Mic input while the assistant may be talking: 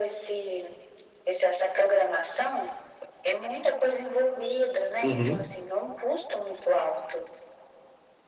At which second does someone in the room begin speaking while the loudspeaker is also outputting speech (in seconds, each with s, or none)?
5.0 s